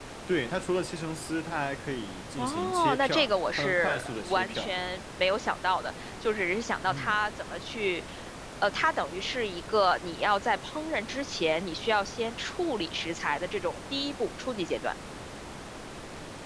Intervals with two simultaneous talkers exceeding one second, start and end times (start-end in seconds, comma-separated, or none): 2.4-4.7